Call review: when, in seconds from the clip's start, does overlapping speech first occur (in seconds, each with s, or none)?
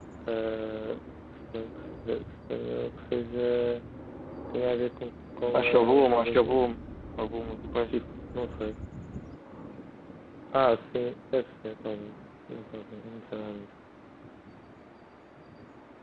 5.5 s